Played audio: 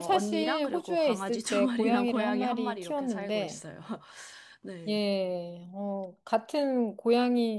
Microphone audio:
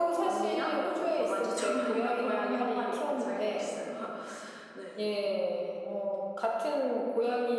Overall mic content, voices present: echo only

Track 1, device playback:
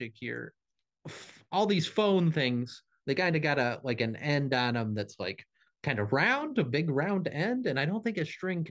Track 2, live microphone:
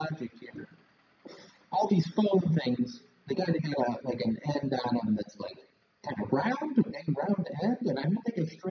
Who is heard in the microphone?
echo only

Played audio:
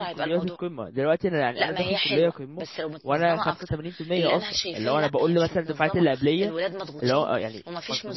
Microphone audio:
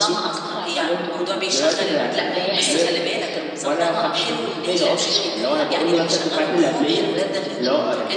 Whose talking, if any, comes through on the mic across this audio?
both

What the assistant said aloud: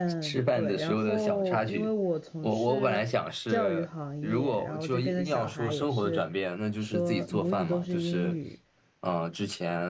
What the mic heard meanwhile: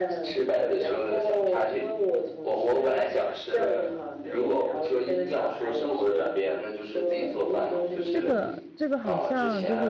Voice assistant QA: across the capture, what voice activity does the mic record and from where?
both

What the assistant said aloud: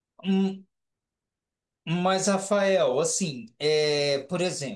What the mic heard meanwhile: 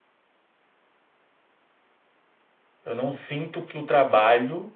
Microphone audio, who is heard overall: user only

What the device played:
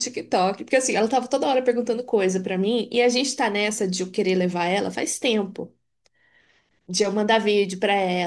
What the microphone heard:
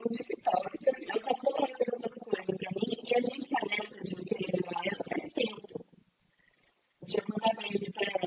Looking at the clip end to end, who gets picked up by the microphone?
echo only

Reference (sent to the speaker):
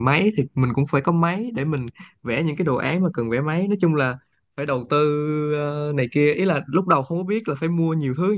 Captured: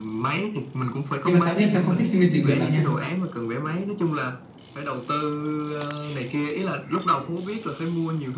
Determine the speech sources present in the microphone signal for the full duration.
both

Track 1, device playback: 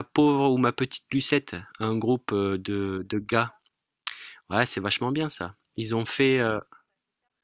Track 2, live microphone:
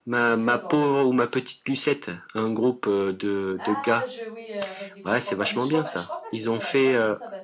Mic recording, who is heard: both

